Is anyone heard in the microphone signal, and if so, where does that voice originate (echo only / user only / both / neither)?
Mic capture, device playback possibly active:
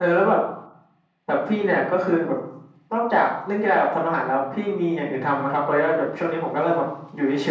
echo only